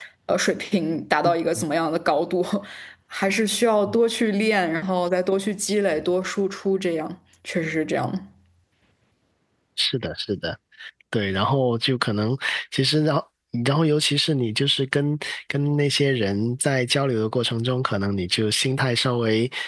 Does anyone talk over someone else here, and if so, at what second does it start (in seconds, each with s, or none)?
none